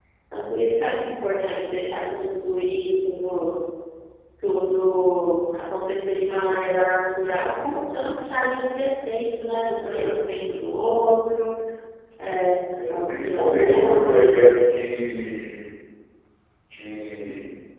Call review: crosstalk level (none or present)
present